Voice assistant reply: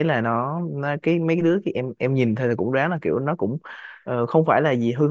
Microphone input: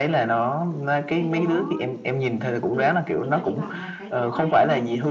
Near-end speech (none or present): present